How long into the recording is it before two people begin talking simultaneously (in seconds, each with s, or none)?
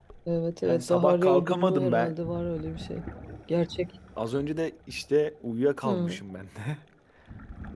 0.6 s